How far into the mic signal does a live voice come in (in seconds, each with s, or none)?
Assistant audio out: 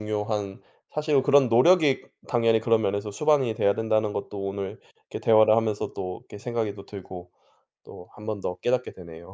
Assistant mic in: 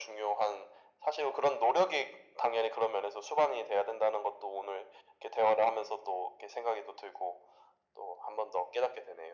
none